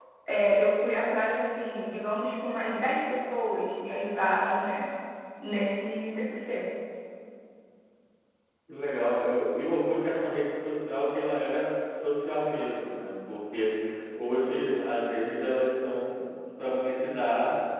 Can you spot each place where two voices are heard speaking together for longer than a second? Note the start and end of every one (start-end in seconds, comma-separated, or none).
none